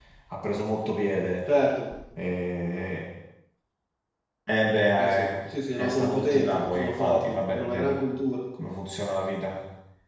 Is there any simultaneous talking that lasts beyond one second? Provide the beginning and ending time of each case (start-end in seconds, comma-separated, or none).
5.8-8.0